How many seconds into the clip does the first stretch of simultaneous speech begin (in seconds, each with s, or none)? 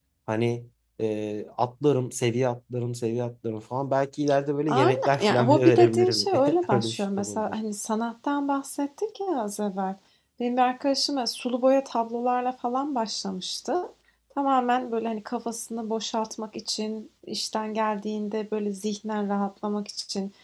4.7 s